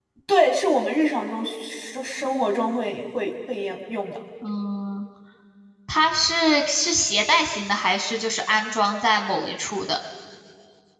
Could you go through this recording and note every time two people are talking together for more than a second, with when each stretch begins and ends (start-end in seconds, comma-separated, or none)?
none